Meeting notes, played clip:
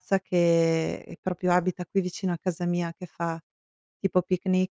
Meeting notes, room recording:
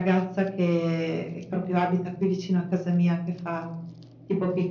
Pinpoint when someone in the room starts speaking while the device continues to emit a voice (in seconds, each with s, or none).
none